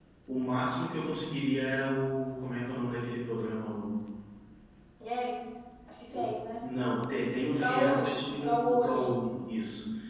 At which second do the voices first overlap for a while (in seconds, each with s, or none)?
7.6 s